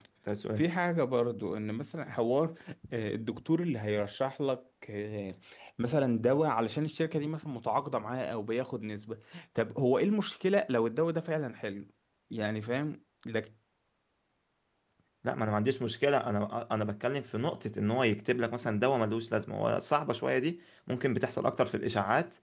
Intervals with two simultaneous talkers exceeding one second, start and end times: none

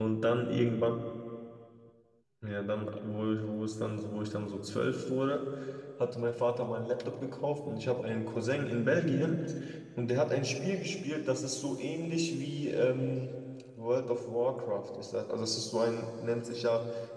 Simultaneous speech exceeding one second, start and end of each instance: none

